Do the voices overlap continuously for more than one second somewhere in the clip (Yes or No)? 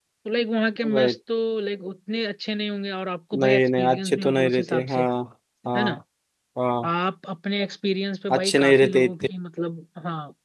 Yes